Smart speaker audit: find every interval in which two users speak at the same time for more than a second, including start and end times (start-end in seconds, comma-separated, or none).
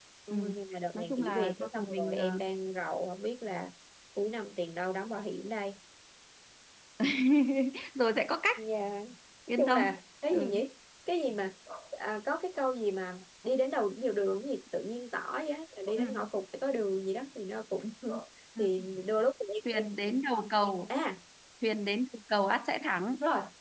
0.9-2.4